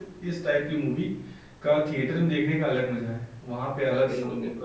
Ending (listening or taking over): listening